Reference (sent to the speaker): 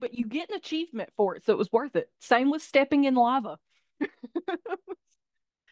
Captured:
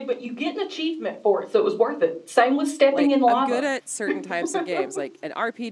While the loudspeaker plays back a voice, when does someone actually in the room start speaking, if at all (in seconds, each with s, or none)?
2.9 s